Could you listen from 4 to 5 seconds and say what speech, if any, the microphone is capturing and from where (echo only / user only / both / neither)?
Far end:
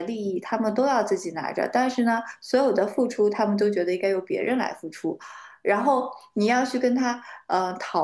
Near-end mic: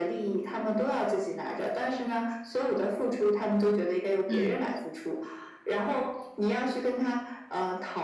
both